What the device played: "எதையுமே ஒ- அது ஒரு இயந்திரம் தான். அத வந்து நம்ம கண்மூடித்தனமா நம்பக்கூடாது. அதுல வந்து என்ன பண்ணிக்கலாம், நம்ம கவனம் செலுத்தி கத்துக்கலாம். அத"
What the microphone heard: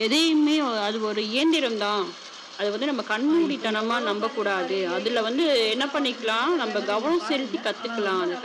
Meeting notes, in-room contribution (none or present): present